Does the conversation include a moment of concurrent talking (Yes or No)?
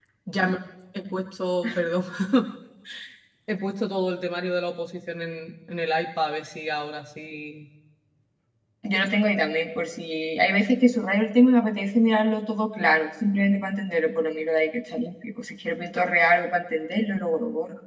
No